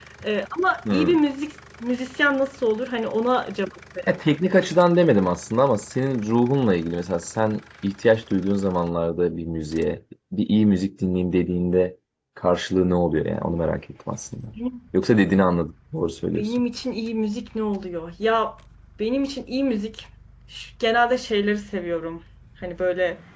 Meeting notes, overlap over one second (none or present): none